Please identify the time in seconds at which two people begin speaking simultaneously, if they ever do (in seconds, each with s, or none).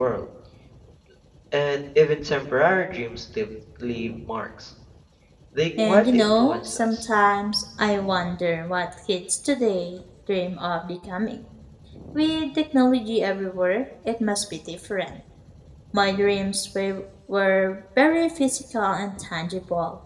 5.8 s